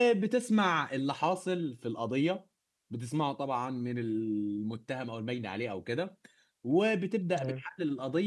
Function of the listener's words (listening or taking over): listening